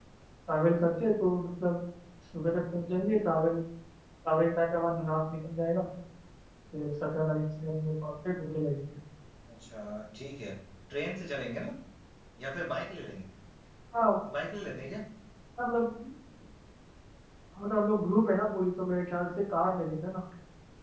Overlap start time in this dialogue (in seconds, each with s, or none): none